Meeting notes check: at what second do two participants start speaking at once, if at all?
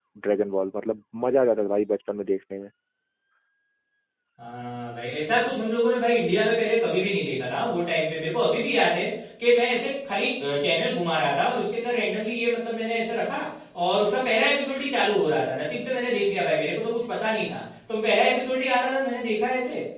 none

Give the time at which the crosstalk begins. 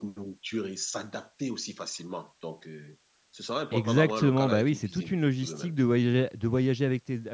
3.7 s

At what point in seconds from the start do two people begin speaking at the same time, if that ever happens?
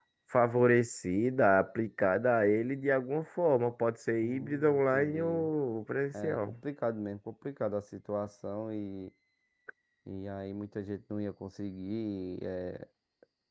4.2 s

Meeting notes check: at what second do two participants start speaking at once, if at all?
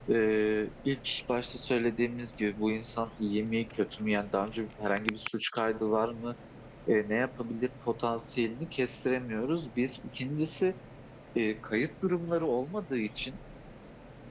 none

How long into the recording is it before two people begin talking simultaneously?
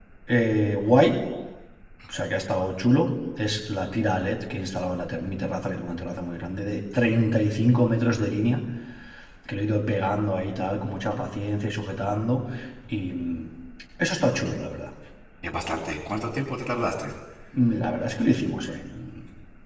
none

